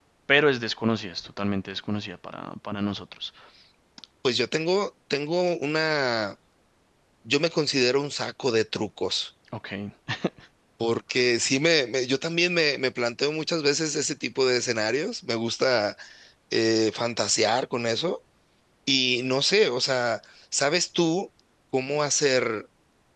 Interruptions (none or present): none